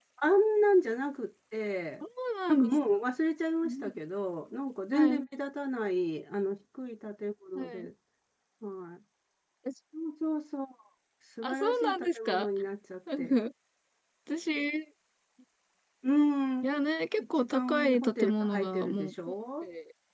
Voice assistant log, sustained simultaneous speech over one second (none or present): present